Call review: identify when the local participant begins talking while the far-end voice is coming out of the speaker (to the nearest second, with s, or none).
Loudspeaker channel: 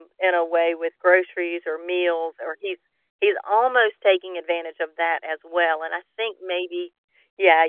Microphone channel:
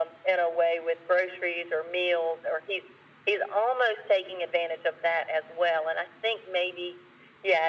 none